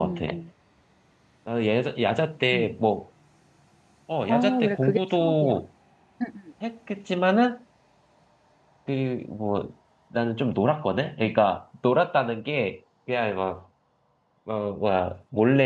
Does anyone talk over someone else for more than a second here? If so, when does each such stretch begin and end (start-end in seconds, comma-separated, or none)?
4.3-5.5